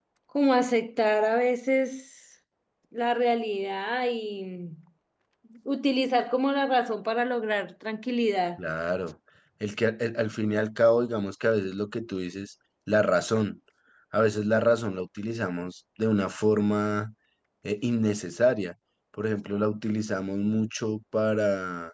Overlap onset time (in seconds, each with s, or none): none